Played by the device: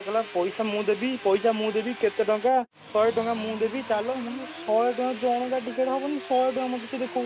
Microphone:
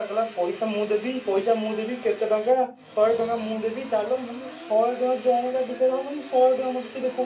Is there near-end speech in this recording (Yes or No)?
No